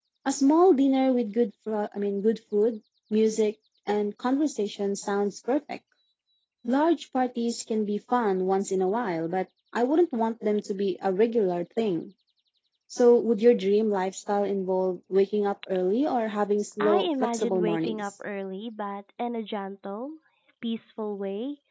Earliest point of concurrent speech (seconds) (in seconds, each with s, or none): 16.8 s